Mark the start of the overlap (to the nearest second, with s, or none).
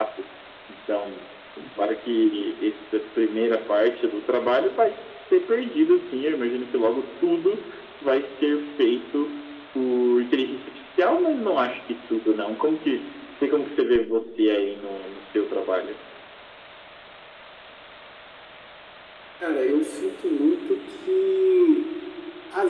none